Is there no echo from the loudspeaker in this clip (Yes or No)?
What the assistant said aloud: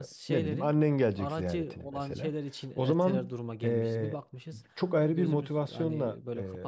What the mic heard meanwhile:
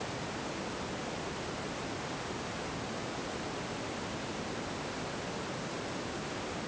Yes